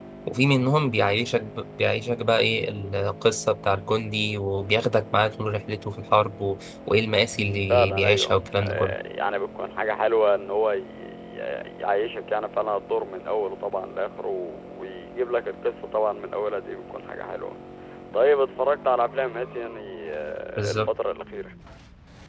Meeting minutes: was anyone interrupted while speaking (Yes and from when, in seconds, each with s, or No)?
Yes, from 7.7 s